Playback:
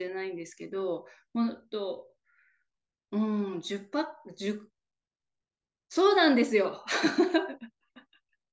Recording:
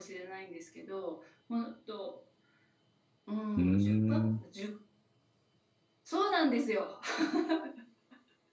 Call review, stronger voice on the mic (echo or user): user